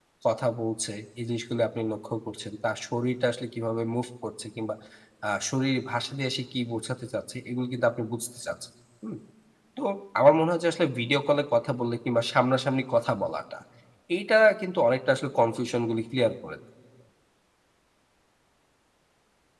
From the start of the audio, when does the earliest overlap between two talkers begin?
none

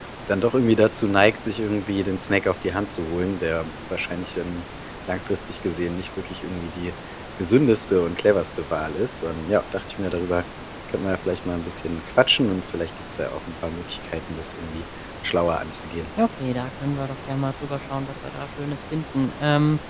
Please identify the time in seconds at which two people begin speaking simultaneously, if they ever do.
none

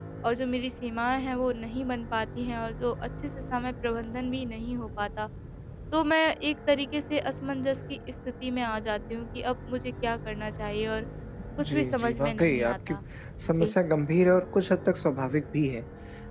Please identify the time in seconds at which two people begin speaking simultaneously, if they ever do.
11.6 s

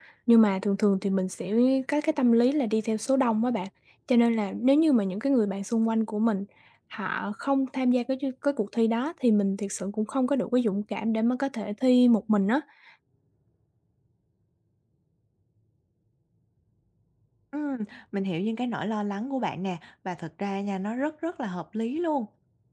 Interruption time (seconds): none

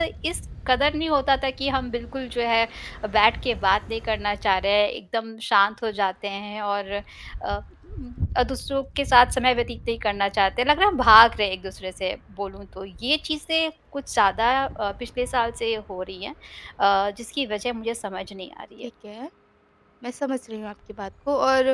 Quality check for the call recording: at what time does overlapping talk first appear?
none

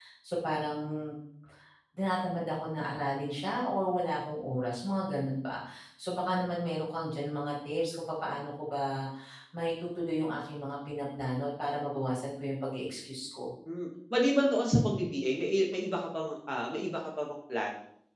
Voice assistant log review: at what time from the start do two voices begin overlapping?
none

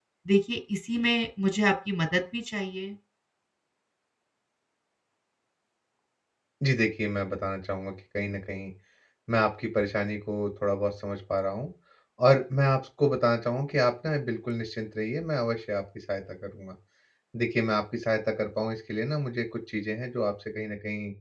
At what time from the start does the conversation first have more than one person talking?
none

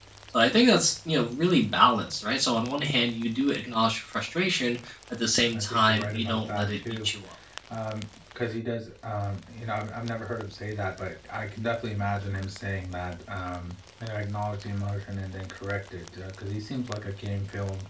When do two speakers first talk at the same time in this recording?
5.5 s

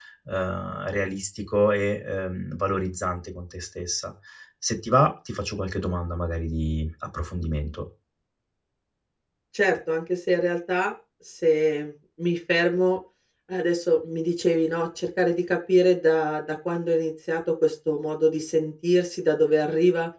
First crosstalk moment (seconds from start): none

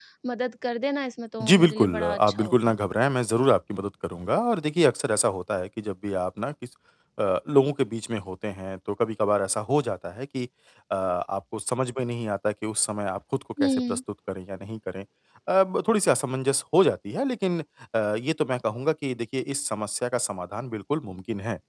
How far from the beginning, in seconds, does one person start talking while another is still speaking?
1.4 s

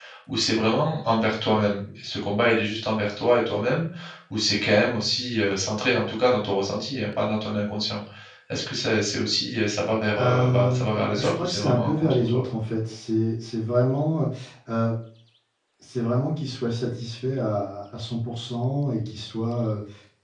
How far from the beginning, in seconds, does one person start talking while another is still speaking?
10.2 s

